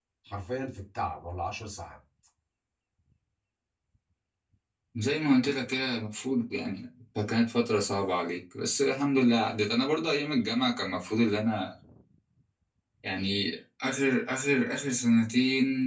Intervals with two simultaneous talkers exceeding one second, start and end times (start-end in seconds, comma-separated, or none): none